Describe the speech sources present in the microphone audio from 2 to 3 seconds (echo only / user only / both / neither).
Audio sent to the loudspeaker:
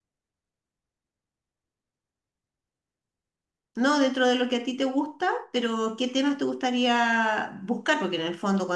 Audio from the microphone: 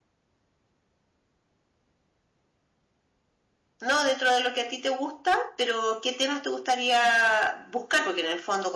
neither